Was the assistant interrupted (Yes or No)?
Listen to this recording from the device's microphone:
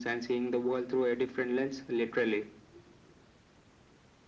No